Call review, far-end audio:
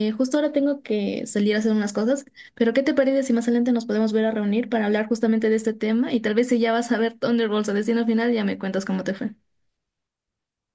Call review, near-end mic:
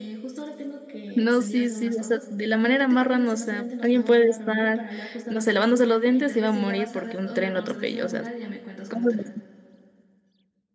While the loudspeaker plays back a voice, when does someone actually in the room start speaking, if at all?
1 s

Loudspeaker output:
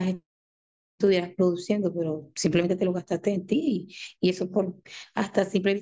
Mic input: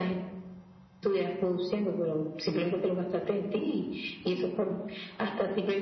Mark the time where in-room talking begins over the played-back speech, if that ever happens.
none

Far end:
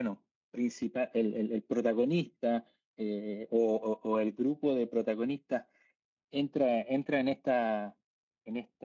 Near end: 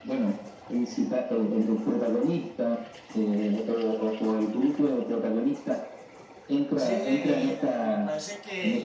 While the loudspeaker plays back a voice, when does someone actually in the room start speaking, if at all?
7 s

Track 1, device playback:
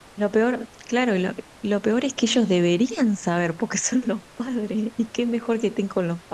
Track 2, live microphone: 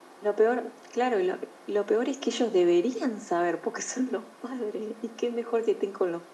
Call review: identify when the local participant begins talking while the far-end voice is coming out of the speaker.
none

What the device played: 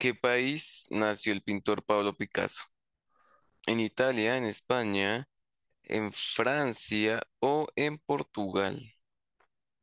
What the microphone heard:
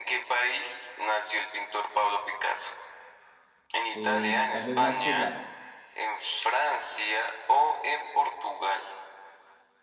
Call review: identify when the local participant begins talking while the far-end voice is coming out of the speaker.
4 s

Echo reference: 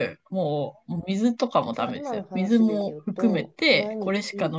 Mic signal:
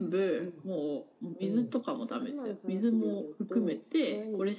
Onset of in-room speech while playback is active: 0 s

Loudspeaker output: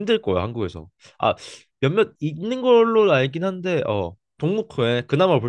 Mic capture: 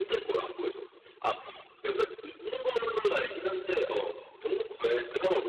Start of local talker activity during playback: none

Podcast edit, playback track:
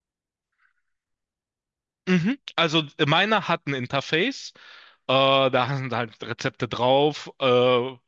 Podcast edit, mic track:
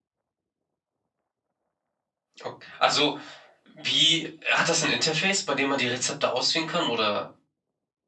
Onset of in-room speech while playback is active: 2 s

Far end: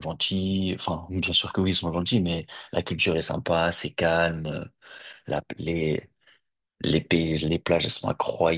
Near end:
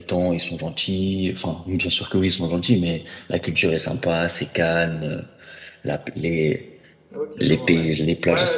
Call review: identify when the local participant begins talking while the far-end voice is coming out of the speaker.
7 s

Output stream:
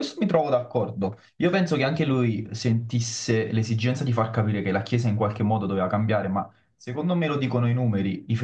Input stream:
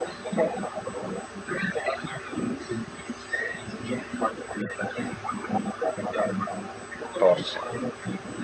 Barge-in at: 7 s

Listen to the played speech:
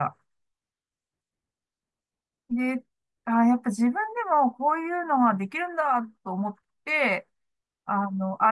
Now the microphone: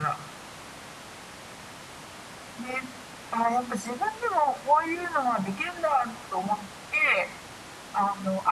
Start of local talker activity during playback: none

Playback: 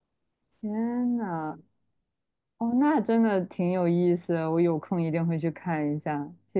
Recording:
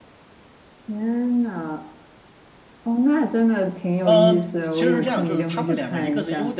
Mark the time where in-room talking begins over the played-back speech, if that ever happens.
4 s

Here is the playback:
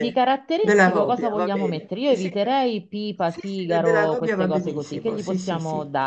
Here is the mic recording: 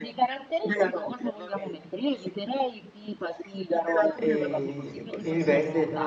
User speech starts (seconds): 4 s

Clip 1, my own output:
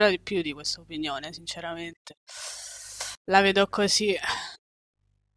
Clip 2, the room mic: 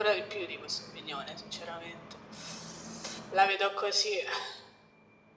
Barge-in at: none

